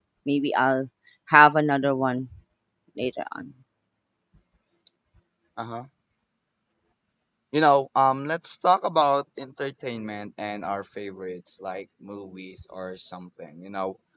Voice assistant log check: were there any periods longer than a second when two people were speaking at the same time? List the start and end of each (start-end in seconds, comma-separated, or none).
none